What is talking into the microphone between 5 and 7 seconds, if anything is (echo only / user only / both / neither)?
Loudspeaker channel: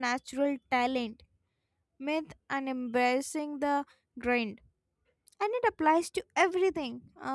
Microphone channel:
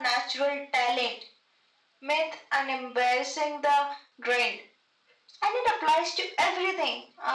echo only